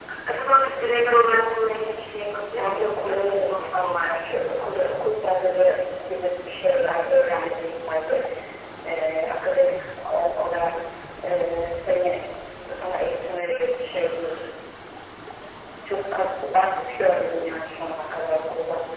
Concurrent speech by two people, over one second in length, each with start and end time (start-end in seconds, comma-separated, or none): 2.5-4.2